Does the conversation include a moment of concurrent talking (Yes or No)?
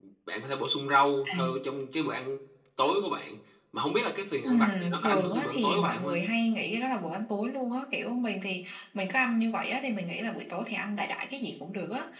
Yes